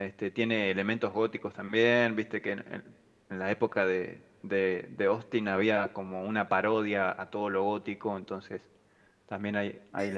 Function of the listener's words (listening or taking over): taking over